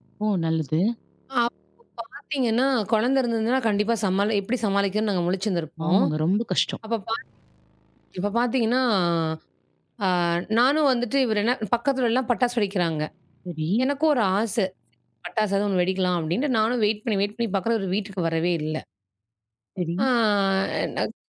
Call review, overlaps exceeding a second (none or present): none